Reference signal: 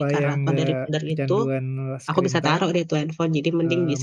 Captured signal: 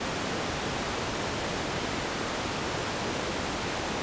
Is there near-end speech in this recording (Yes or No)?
No